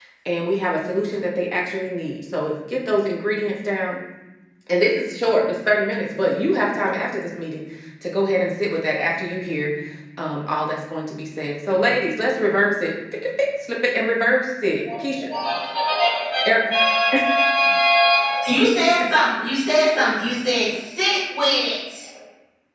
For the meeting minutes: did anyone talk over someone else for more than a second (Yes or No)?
No